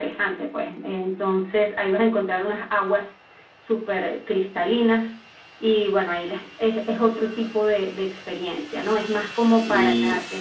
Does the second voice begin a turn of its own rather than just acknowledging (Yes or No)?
No